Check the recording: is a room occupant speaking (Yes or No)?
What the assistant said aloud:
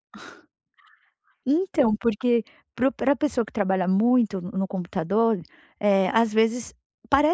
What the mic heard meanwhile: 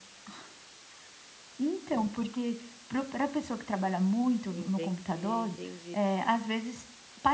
Yes